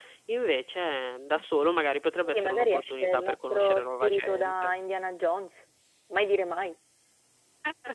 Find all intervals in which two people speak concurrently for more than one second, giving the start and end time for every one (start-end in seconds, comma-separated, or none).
2.1-4.7